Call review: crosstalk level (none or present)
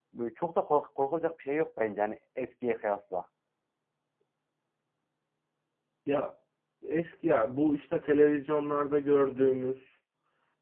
none